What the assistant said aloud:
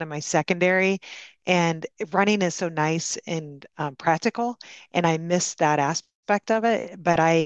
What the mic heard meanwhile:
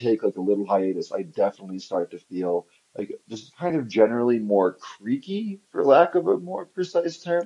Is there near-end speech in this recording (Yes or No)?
Yes